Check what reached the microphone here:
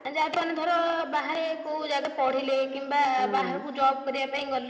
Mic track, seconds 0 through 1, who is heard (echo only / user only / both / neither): echo only